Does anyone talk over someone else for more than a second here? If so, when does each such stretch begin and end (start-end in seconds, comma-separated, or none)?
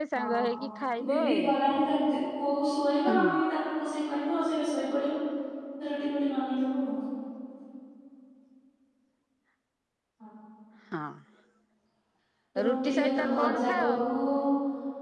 12.6-13.9